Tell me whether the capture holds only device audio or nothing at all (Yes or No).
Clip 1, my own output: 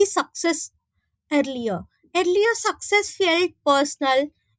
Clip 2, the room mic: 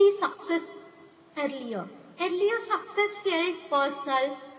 Yes